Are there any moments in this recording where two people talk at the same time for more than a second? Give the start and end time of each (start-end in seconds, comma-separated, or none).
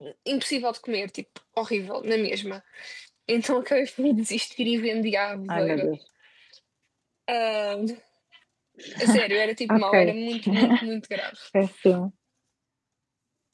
none